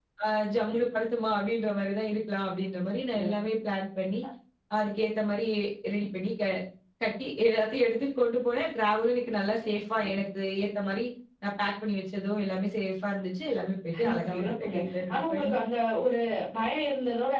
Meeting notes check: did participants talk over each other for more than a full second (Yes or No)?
Yes